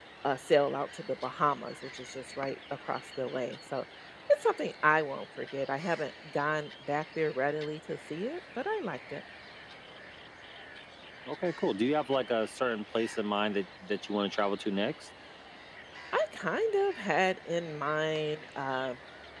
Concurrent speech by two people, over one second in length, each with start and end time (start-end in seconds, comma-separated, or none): none